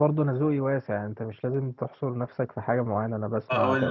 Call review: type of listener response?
taking over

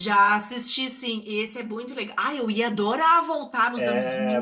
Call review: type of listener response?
taking over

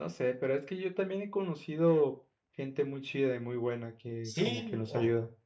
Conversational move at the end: taking over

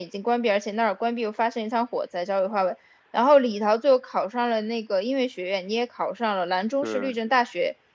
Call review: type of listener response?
listening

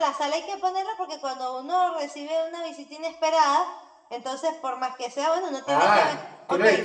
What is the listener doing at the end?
taking over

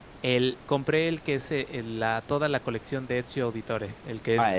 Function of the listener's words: taking over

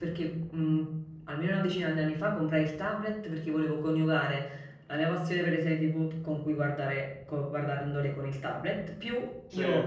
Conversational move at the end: listening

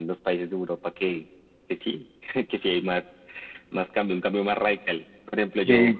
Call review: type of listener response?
listening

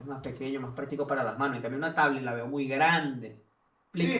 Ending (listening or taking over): taking over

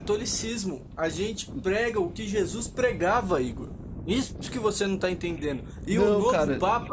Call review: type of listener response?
listening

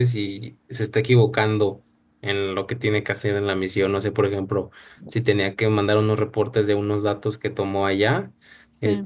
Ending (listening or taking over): listening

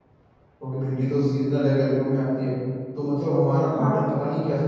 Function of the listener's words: listening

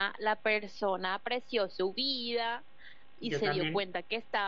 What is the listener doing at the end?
listening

